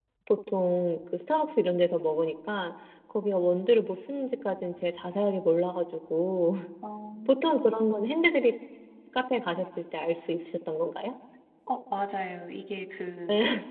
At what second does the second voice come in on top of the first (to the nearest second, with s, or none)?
none